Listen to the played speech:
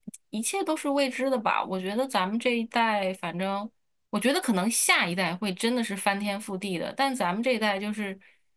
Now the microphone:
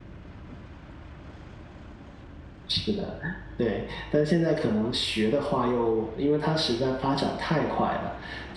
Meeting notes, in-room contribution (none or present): present